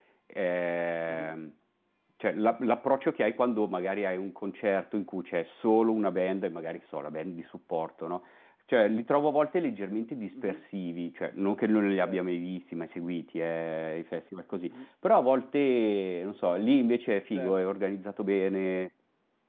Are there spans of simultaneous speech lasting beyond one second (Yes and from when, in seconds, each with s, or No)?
No